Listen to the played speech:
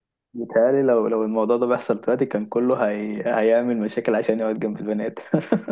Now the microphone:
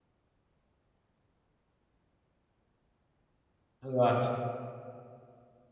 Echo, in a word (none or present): none